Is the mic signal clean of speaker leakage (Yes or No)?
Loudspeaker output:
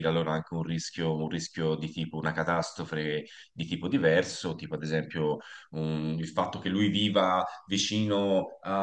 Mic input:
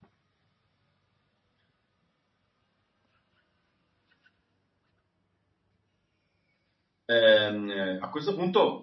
Yes